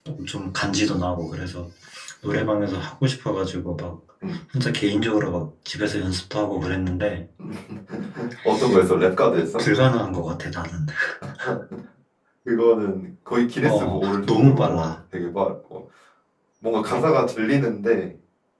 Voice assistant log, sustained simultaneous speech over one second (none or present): present